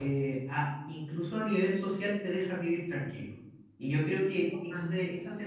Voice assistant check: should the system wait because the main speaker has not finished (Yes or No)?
Yes